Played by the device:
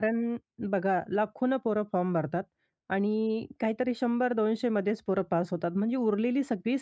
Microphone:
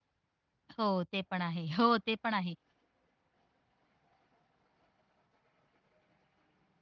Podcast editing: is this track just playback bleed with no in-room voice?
No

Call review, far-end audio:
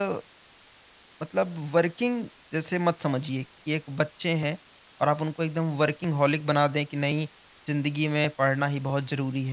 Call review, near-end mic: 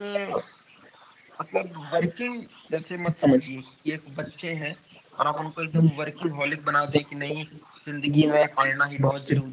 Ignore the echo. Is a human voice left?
No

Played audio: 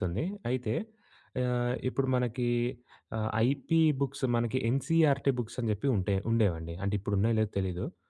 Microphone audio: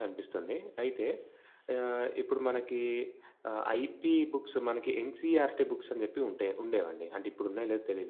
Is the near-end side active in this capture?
No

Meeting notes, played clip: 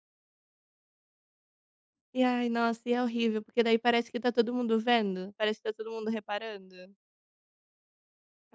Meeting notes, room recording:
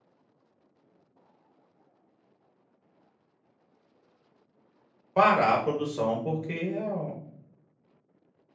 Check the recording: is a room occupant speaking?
Yes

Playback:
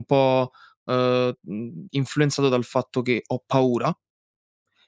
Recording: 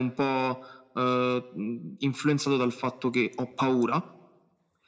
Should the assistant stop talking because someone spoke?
No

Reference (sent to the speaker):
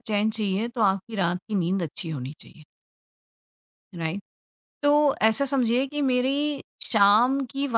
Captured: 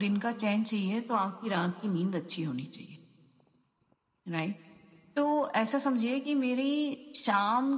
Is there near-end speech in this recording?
No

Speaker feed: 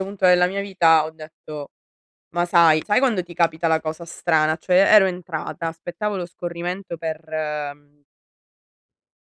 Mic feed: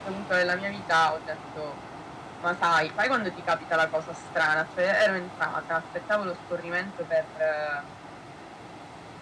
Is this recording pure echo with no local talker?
Yes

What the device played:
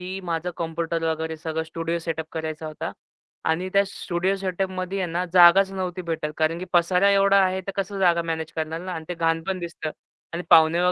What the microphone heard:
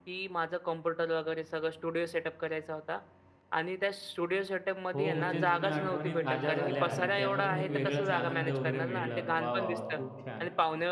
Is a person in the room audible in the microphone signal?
Yes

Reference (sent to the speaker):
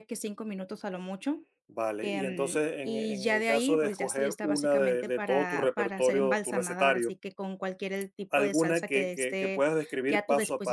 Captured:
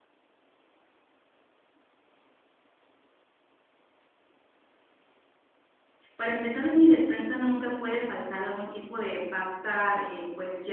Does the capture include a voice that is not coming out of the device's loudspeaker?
Yes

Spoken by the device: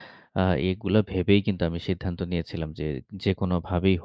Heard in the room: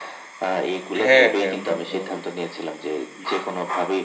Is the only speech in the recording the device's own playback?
No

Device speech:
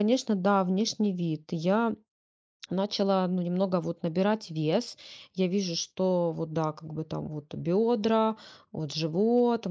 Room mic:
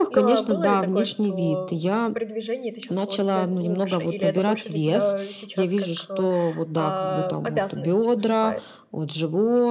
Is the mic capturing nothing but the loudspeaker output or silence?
No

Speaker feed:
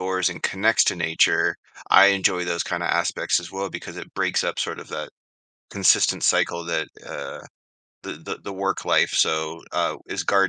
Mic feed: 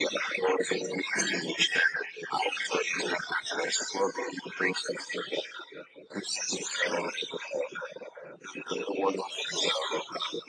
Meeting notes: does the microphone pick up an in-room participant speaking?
No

